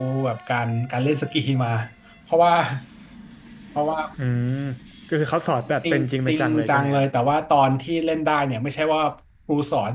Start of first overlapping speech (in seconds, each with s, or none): 5.8 s